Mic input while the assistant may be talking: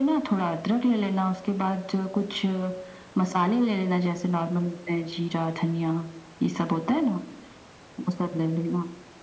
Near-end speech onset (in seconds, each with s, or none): none